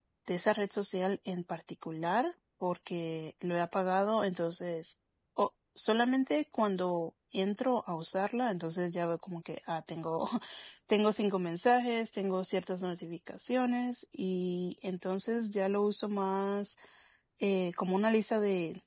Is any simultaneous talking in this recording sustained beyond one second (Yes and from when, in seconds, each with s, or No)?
No